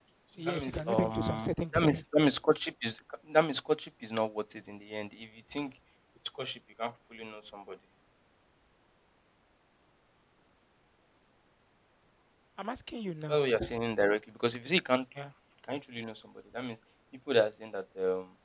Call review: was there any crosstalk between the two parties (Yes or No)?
Yes